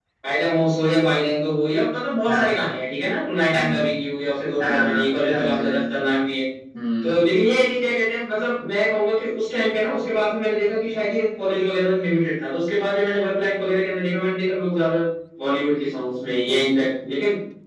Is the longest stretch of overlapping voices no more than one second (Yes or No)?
No